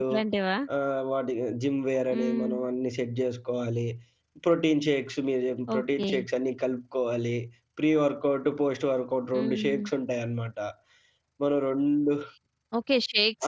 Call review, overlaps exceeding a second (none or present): none